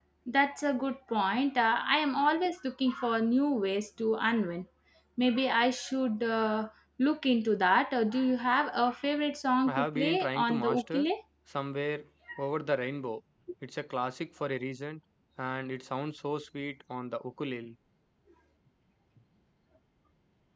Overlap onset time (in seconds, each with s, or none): 9.7 s